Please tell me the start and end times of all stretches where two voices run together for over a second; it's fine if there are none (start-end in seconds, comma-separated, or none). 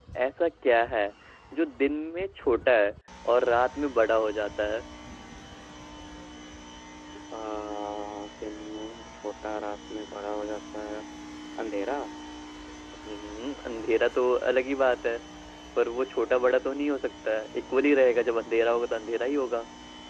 none